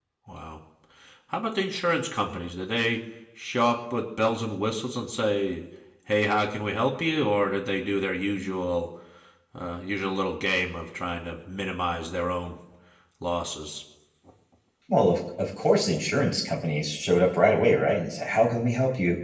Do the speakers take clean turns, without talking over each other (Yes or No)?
Yes